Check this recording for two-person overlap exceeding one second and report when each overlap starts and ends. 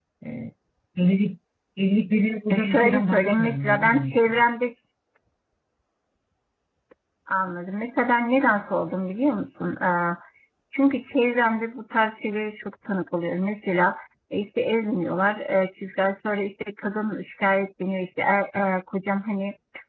2.5-4.4

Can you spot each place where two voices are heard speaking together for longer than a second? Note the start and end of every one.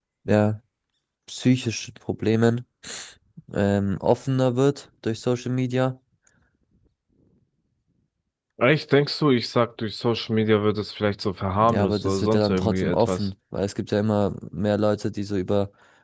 11.6-13.3

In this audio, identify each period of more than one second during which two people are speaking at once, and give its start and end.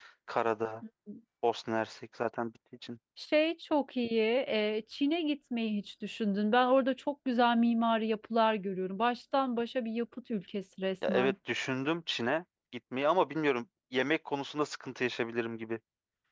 none

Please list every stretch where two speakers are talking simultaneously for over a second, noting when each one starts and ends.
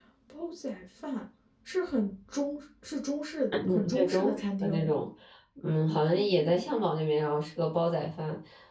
3.5-4.9

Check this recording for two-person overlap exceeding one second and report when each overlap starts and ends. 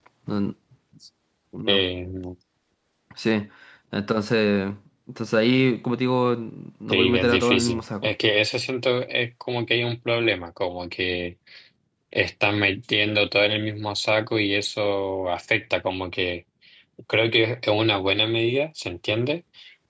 6.9-8.1

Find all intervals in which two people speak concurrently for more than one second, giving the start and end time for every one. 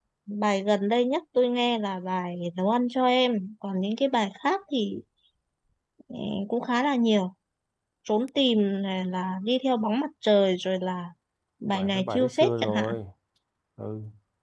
11.7-13.0

